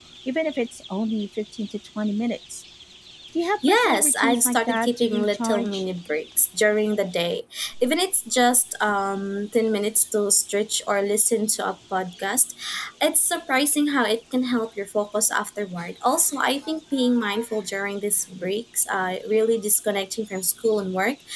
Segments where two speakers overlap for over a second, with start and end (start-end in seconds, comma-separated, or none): 3.7-5.8